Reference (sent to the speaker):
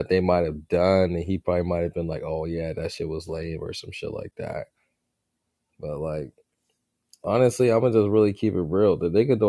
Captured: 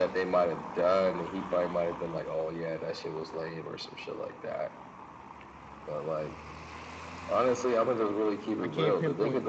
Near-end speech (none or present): present